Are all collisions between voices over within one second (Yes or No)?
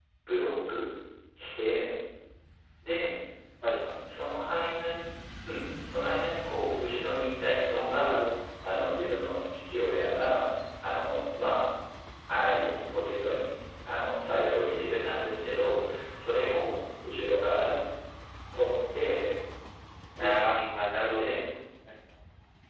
Yes